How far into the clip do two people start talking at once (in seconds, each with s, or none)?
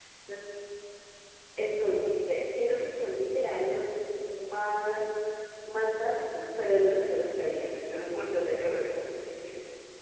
7.3 s